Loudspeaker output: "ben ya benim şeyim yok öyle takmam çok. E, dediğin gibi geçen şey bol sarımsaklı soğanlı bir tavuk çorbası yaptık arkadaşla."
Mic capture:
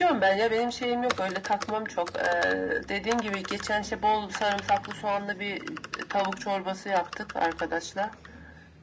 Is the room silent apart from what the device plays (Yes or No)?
Yes